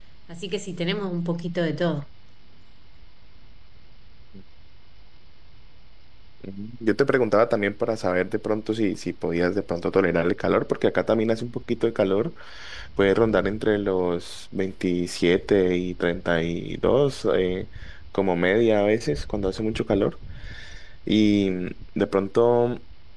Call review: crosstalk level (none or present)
none